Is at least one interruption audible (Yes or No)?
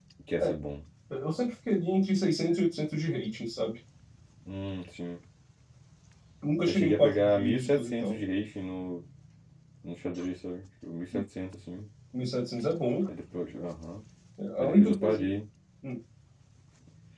Yes